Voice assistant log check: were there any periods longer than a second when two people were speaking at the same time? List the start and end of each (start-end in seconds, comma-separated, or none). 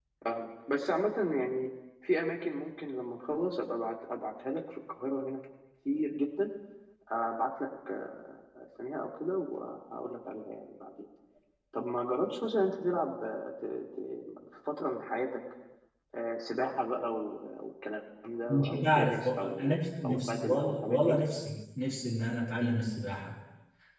18.5-21.2